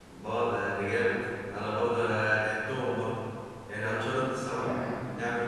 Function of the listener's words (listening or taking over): listening